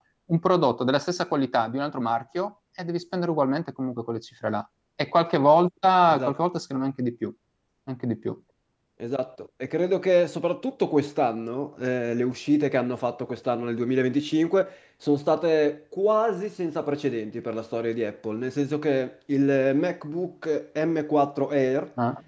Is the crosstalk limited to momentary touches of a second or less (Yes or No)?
Yes